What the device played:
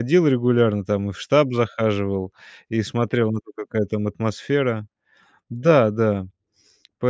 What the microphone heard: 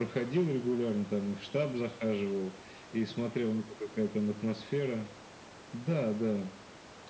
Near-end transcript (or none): none